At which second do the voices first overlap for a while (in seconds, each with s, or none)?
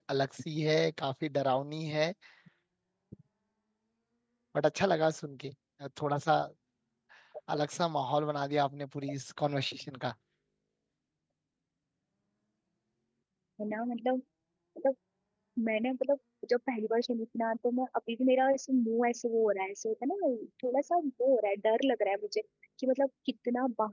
none